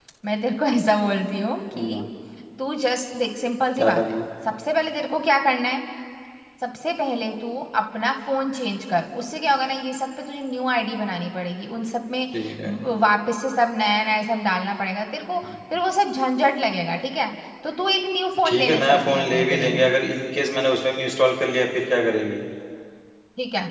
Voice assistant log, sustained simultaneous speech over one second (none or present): present